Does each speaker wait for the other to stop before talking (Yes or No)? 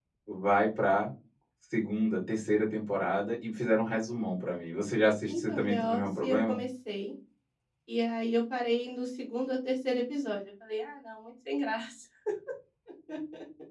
No